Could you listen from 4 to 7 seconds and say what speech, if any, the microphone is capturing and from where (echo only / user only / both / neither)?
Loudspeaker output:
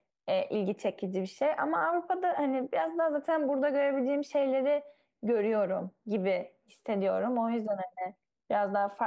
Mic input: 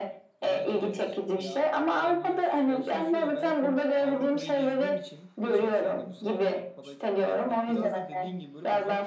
both